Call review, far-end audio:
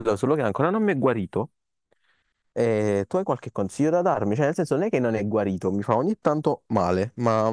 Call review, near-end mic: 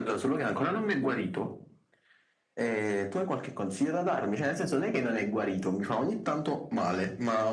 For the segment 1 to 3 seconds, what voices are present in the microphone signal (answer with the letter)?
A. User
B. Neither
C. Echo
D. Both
C